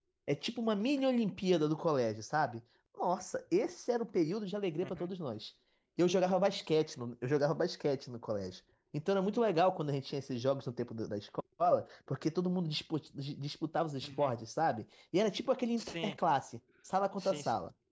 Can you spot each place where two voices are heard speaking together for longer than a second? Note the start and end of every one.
none

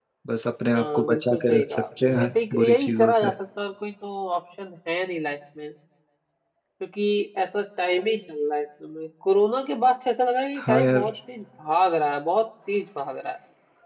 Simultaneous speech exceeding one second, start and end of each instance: 0.7-3.3

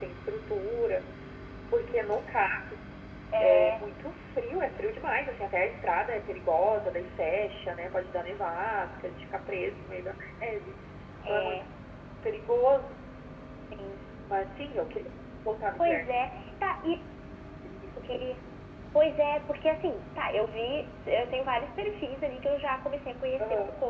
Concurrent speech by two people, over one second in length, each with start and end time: none

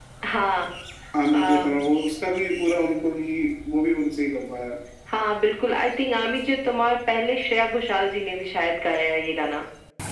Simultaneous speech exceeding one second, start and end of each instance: none

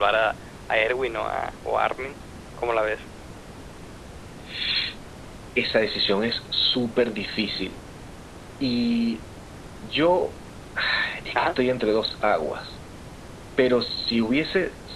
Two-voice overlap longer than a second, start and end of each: none

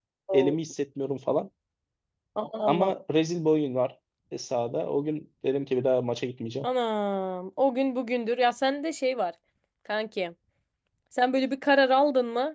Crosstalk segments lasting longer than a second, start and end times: none

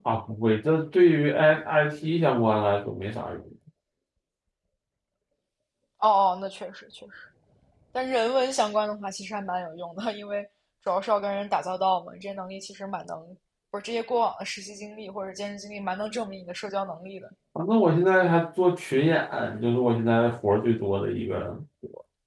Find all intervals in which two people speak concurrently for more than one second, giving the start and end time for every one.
none

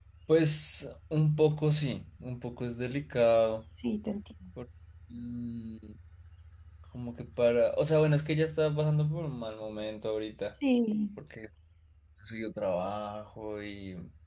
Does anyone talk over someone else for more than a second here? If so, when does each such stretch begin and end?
none

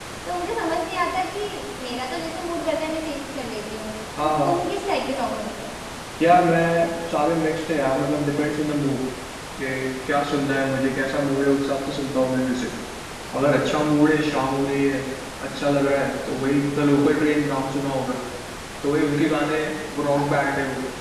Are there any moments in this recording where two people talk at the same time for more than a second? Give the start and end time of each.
none

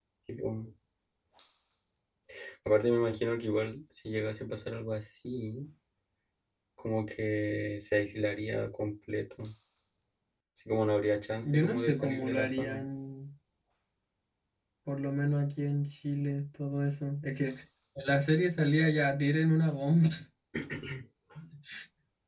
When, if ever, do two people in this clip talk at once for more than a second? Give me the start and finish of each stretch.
11.5-12.8

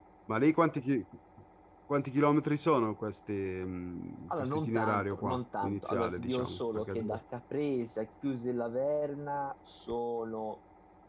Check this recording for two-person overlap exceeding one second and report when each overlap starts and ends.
4.3-7.2

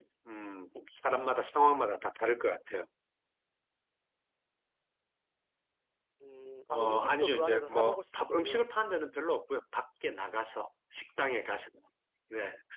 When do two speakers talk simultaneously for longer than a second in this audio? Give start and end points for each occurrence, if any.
6.7-8.7

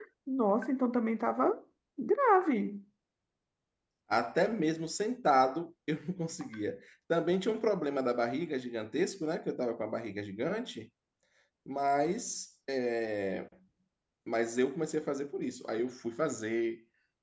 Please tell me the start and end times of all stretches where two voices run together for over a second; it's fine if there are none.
none

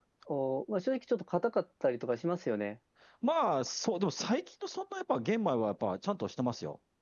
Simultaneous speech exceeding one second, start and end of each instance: none

